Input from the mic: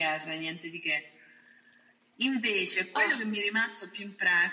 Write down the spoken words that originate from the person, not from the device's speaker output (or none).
Ah,